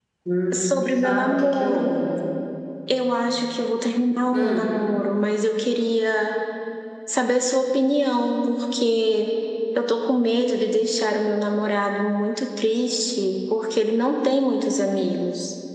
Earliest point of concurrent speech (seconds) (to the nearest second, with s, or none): 1 s